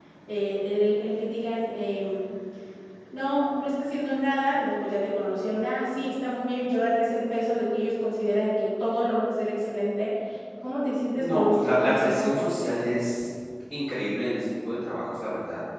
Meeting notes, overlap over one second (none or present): present